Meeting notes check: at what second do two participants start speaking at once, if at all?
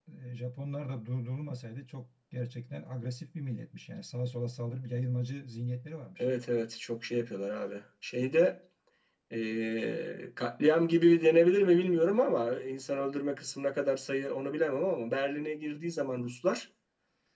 none

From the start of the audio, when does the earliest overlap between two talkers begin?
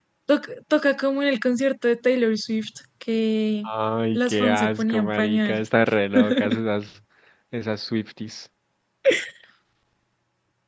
4 s

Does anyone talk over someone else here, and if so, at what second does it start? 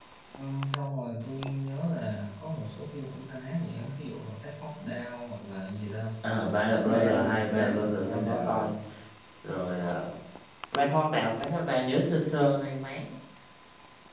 7 s

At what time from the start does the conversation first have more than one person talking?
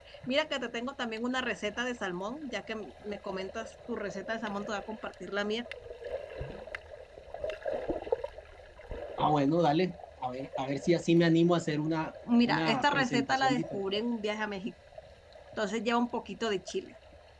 12 s

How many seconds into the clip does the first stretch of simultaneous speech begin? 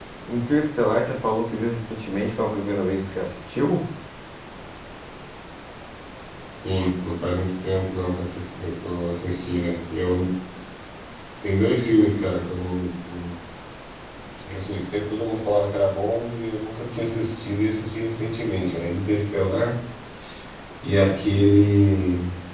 none

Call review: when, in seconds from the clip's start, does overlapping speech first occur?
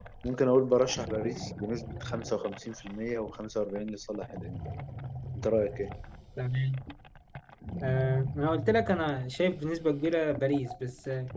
none

